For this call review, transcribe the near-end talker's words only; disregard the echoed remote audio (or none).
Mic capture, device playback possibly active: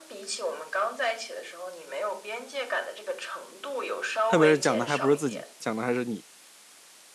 特别是讲的还不是自己，讲的还是你。